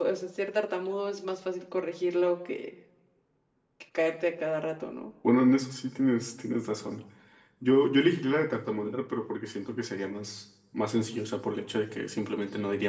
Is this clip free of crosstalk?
Yes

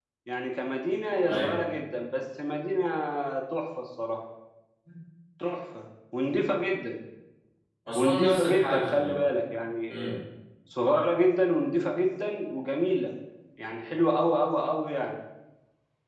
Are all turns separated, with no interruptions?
No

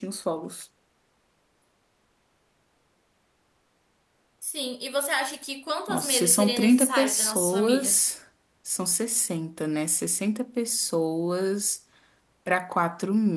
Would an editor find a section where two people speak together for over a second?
Yes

